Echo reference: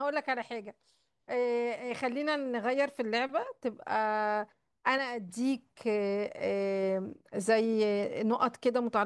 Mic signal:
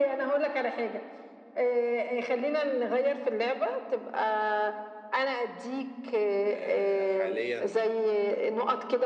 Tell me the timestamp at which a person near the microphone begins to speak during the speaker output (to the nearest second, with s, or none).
6 s